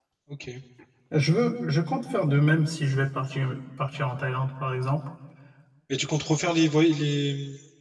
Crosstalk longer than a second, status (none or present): none